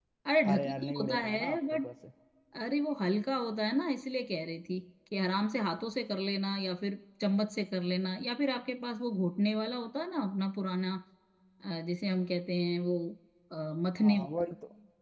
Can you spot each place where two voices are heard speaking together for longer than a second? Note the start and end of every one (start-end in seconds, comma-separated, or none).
0.5-1.9